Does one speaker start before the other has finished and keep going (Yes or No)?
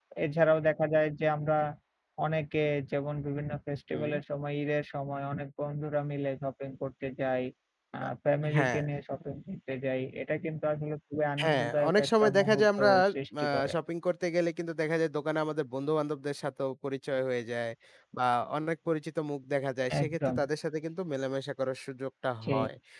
Yes